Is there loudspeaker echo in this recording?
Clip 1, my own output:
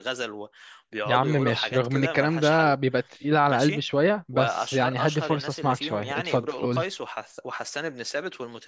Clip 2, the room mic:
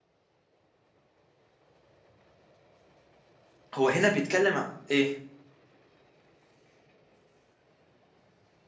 No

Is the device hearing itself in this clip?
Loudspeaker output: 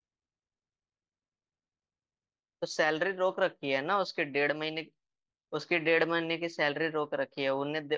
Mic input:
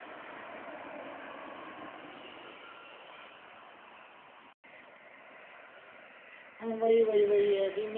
No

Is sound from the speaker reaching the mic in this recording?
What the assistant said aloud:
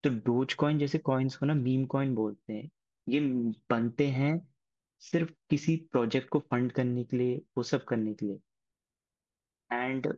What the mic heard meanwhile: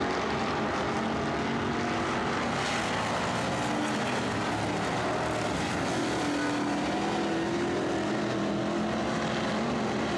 No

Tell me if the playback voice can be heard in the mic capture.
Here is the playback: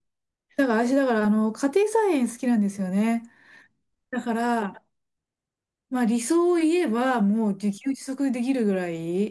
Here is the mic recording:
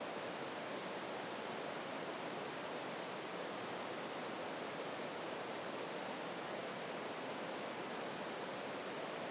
No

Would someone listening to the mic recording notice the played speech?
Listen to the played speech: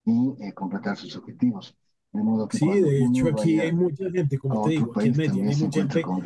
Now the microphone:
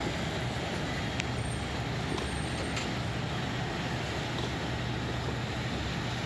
No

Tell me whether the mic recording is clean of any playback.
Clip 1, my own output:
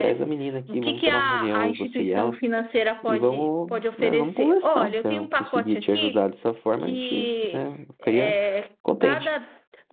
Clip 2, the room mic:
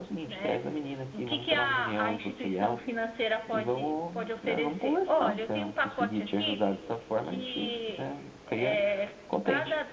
No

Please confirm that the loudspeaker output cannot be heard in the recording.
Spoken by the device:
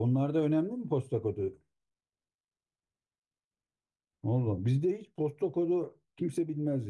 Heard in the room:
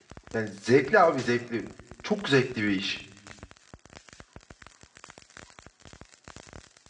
Yes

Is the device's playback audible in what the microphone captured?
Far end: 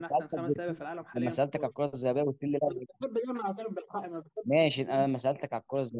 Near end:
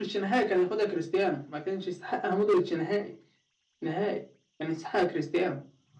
No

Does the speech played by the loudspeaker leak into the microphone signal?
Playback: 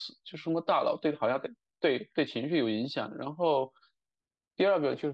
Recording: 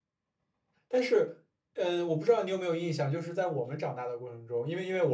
No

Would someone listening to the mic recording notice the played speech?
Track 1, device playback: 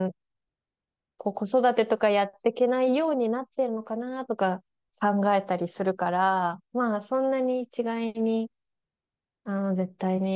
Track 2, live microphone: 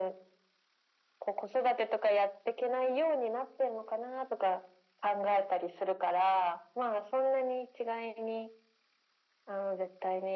Yes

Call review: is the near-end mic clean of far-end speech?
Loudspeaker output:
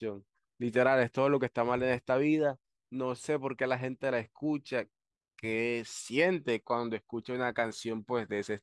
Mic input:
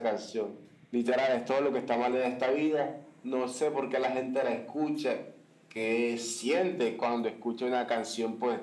No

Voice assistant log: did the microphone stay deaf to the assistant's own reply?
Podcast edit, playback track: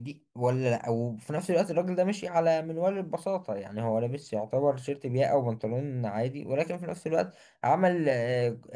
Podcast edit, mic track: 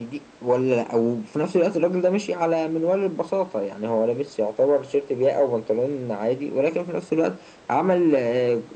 No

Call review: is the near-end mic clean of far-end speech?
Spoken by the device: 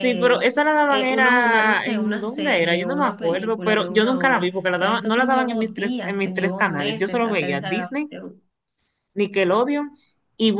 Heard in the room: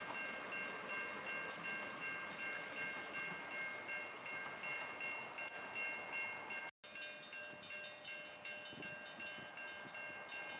Yes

